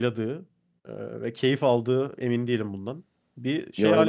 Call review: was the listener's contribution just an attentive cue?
No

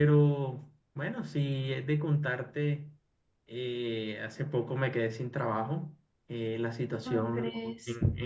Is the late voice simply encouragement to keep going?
Yes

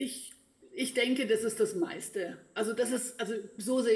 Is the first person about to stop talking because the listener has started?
No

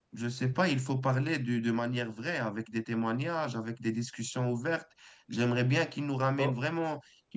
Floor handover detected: No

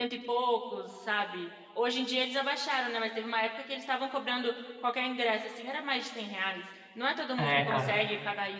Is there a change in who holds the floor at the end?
No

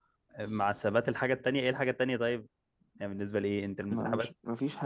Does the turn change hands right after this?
Yes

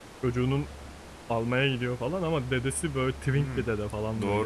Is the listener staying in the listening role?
No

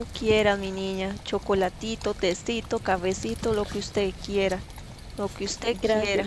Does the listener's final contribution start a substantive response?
Yes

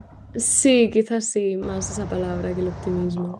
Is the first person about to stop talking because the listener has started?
Yes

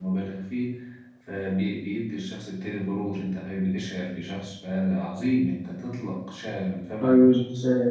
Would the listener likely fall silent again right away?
No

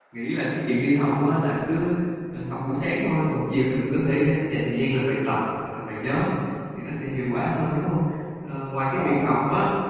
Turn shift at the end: No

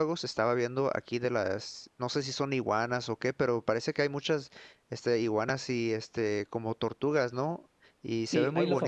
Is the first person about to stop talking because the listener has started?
Yes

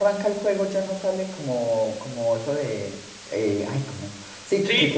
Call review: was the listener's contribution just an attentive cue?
Yes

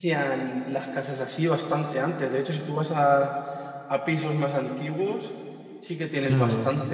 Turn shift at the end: No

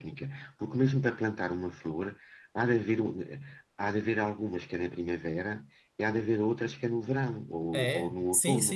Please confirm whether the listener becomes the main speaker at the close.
Yes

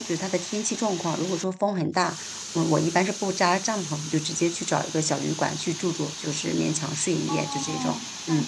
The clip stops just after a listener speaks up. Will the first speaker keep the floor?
No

